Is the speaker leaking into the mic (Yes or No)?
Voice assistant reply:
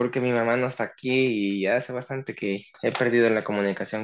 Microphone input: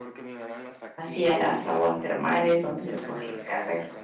Yes